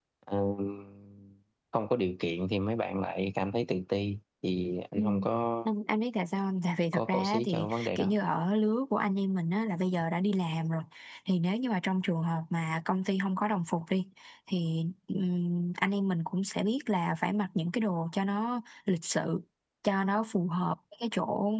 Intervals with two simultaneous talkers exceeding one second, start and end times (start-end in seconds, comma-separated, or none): 6.9-8.2